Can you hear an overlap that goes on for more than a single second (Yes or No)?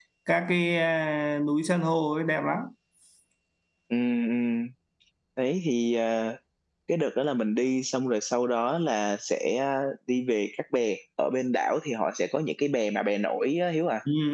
No